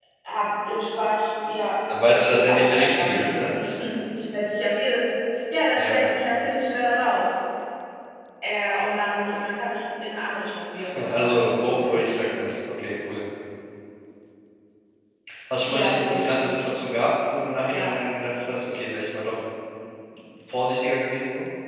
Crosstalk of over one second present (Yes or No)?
Yes